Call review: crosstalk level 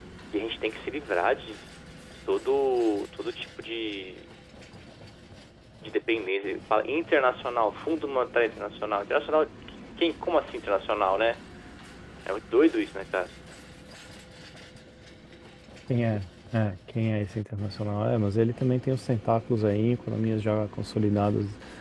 none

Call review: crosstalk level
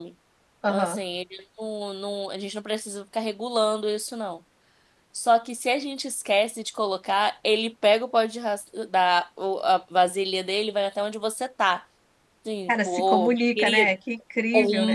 present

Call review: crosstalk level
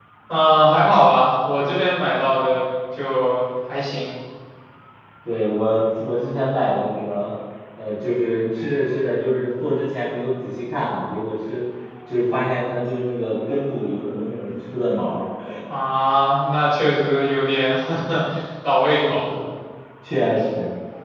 none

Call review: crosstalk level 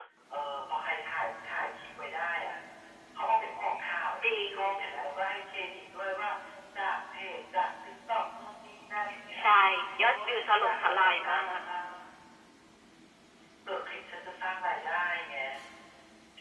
present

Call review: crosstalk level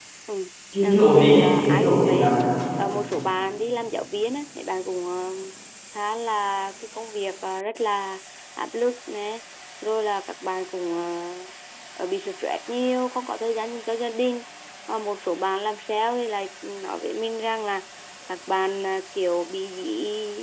present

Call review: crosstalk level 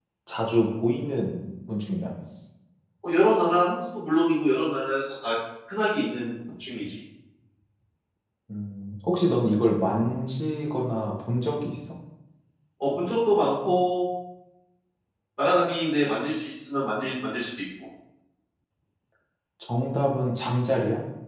none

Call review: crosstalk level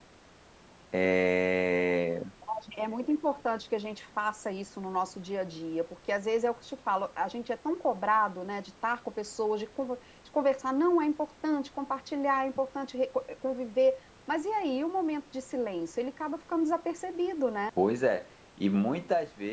none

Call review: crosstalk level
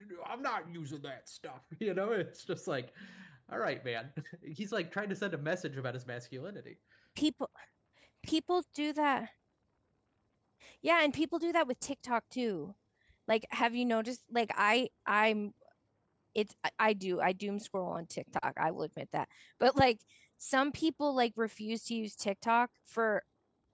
none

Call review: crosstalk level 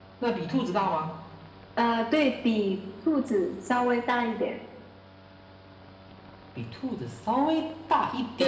none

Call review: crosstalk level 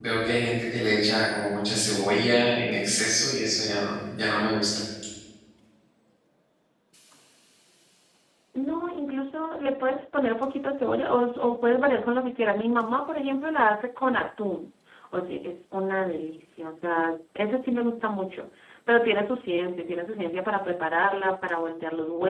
none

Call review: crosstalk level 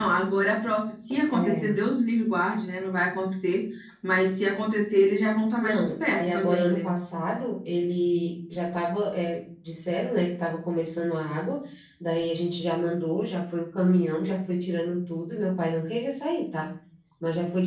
present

